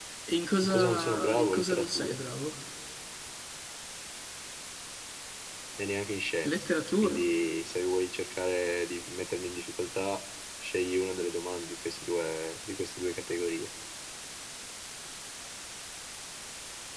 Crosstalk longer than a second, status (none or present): present